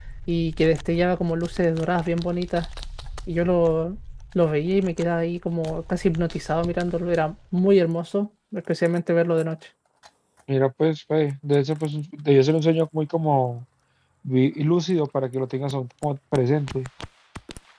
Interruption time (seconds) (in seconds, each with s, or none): none